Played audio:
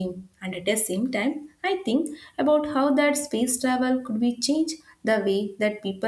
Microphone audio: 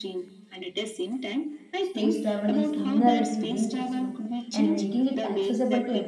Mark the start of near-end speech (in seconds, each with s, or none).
1.8 s